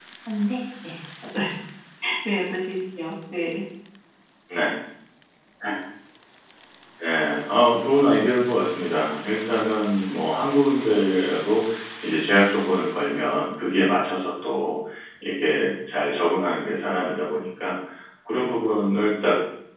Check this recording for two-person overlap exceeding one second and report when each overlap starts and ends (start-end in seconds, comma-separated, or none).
none